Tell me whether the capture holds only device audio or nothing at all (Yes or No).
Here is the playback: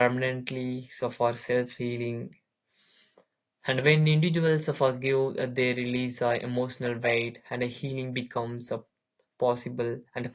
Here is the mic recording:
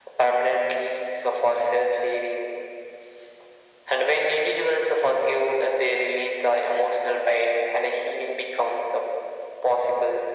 Yes